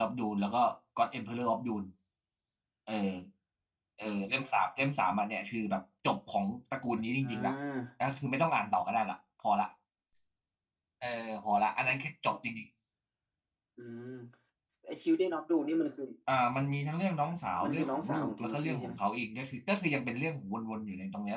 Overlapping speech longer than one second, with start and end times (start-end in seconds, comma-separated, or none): 17.6-18.9